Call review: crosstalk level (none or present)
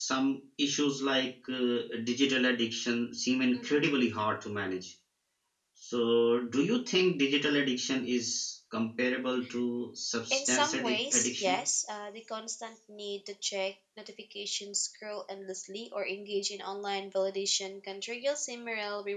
present